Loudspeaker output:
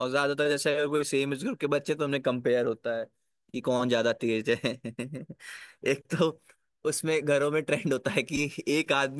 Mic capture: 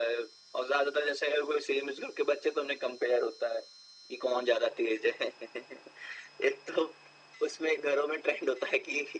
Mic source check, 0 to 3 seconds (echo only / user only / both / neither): echo only